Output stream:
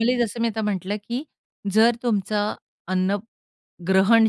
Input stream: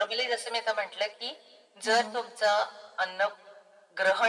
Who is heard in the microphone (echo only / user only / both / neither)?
both